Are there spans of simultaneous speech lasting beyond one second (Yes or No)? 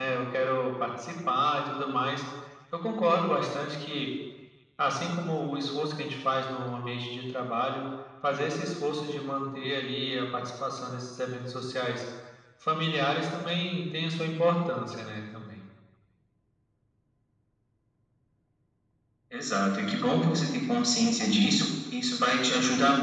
No